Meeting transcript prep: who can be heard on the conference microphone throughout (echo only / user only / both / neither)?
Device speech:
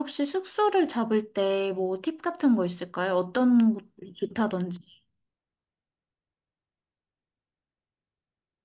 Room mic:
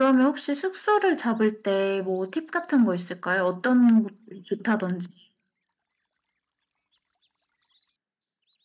echo only